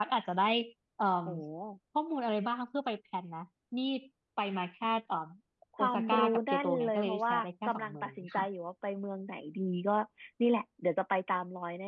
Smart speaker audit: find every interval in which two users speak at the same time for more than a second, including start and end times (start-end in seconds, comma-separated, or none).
5.8-8.5